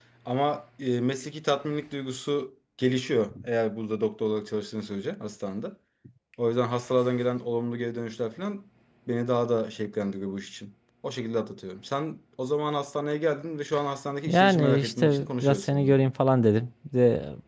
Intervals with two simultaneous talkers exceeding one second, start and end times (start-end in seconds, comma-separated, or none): 14.3-15.9